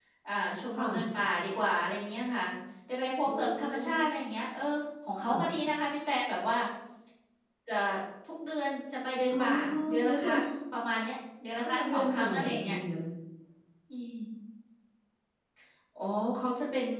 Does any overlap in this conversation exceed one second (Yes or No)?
Yes